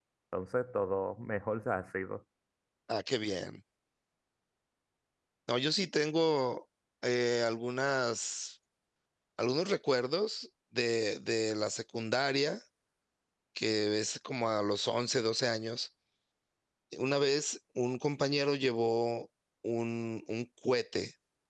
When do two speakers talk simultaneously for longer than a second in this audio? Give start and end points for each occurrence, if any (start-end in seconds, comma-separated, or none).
none